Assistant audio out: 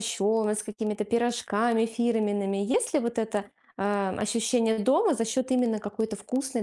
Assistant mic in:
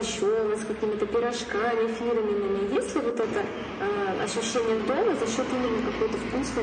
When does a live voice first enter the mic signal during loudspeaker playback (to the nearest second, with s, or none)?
none